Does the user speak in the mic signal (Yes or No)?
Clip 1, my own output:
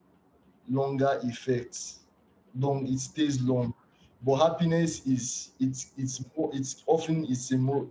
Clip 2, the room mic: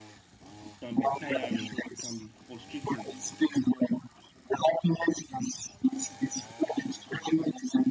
Yes